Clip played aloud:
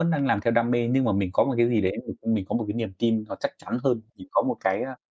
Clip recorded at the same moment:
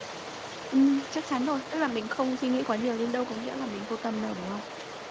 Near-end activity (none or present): present